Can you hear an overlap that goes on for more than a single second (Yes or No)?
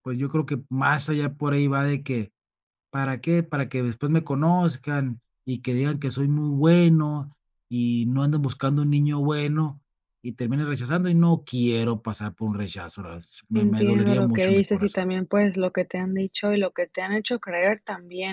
Yes